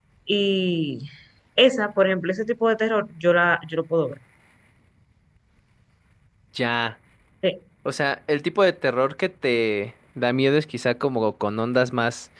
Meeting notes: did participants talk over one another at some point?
No

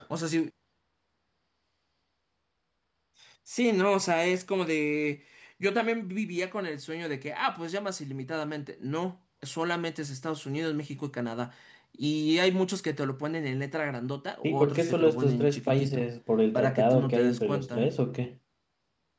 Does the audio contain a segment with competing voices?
Yes, from 14.4 s

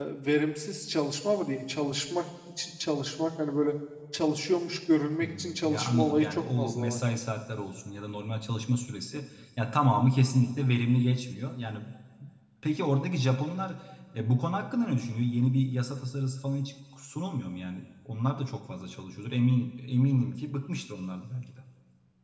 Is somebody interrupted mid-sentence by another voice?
Yes, from 5.2 s

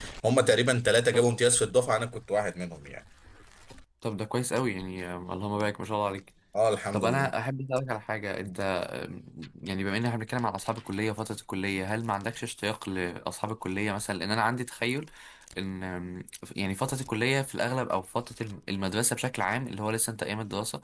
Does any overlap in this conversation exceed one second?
No

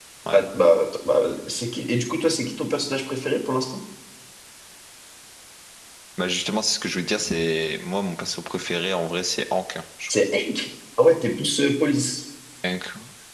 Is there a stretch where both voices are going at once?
No

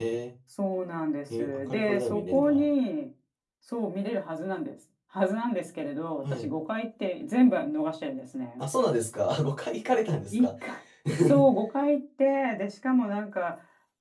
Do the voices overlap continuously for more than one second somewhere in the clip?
Yes, from 1.3 s

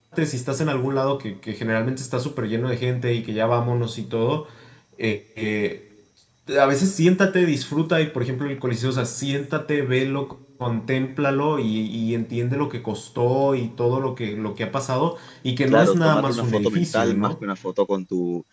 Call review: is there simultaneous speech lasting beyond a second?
Yes, from 15.7 s

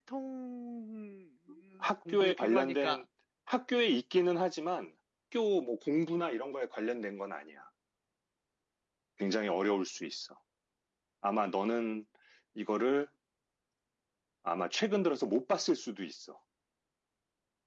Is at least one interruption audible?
Yes, from 1.8 s

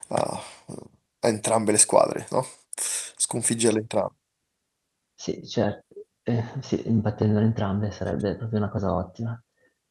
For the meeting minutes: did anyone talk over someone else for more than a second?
No

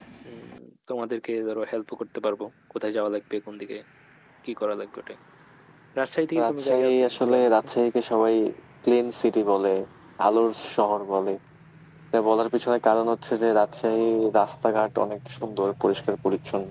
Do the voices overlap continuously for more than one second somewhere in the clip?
Yes, from 6.4 s

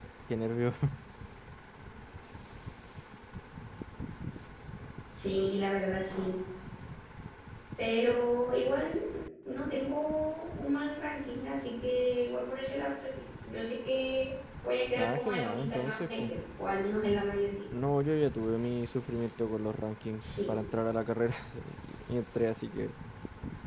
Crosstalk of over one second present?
Yes, from 14.9 s

